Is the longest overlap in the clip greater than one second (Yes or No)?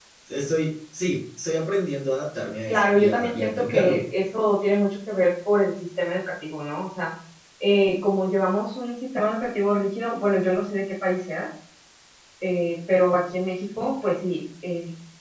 Yes